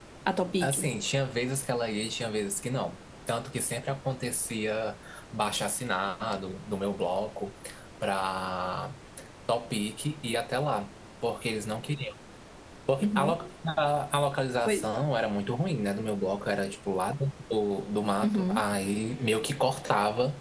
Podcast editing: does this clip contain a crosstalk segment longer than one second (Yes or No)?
No